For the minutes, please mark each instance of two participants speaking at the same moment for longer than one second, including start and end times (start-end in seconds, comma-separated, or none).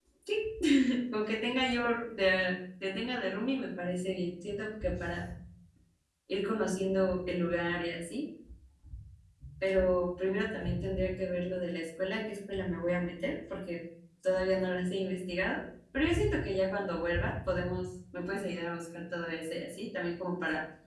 none